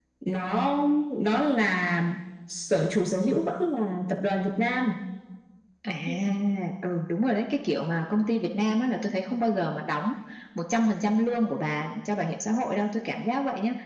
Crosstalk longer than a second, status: none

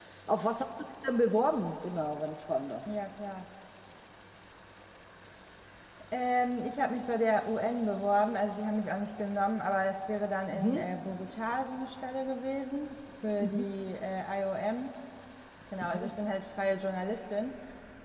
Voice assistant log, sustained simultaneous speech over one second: none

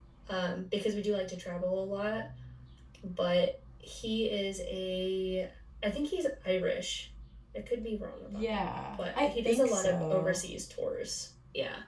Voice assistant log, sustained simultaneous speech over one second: present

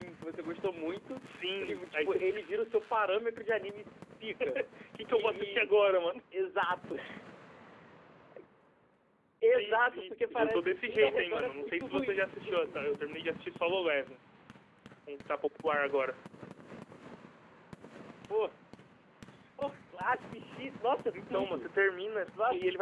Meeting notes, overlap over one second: present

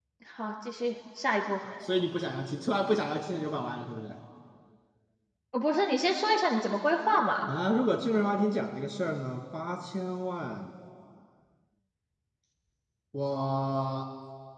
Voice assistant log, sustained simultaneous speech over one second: none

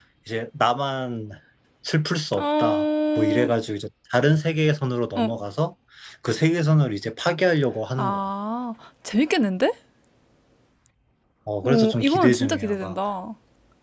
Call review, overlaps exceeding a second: present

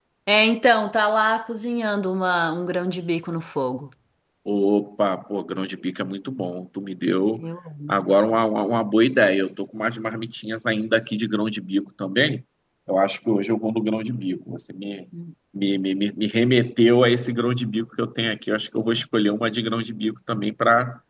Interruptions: none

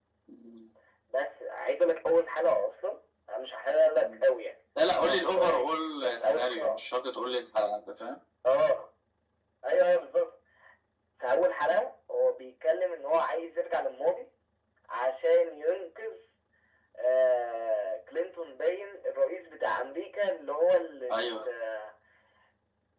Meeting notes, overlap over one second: present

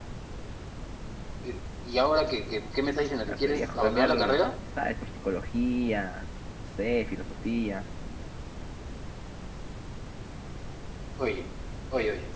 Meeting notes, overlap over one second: present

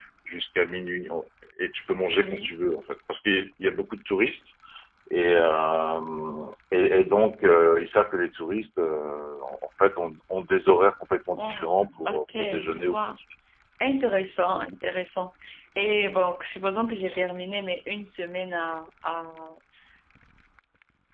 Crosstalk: present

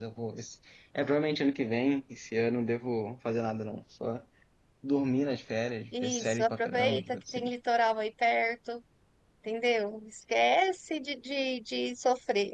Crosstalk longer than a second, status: present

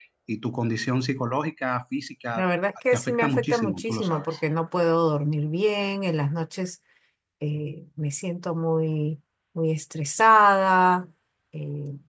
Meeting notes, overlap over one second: present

